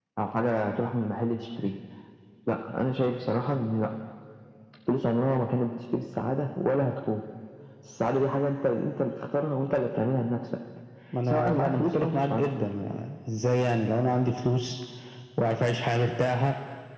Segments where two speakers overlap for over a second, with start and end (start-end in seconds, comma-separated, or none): 11.3-12.7